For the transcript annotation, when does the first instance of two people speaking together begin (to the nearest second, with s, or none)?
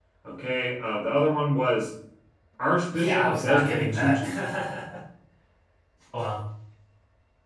3 s